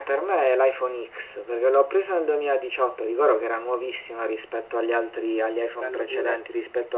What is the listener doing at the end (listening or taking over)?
listening